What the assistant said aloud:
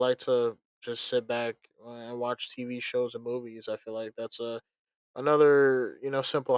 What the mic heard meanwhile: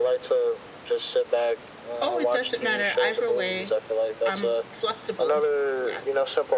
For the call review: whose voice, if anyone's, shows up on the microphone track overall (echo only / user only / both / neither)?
both